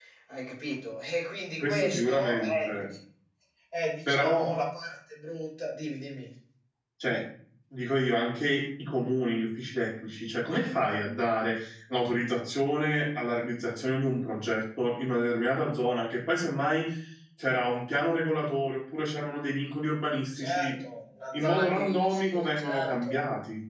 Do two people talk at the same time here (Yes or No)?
Yes